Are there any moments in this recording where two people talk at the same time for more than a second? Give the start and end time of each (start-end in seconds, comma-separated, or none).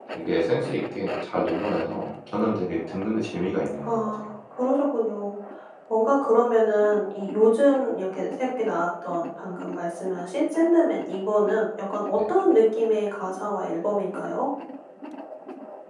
none